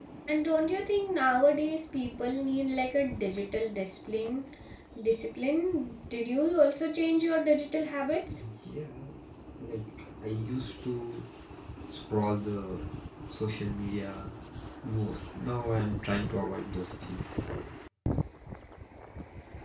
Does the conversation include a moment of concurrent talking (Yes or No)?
No